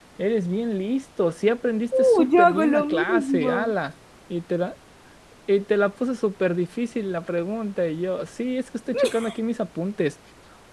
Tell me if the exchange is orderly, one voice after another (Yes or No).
No